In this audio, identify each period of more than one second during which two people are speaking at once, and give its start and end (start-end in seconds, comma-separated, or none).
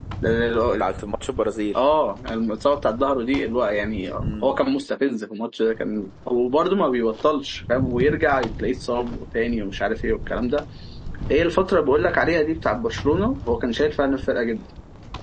none